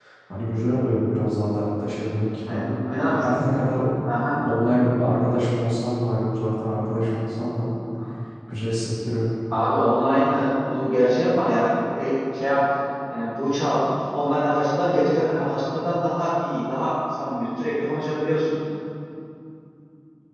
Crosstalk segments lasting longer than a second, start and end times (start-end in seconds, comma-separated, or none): none